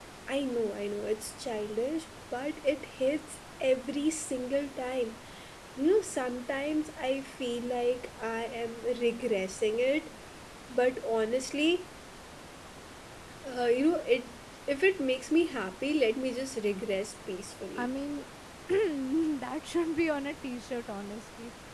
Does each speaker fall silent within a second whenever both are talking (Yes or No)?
Yes